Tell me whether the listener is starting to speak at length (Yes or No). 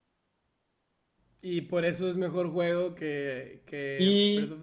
Yes